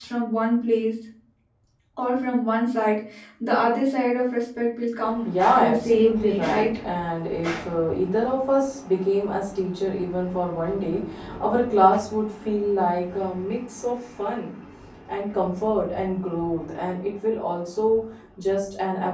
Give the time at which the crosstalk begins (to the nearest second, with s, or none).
5 s